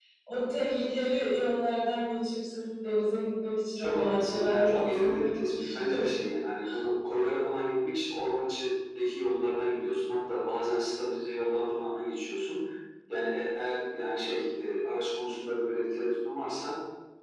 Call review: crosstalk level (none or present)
present